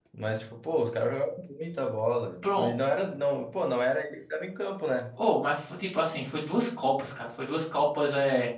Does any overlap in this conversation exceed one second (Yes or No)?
No